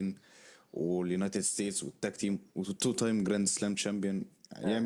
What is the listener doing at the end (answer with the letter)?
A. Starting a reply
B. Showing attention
A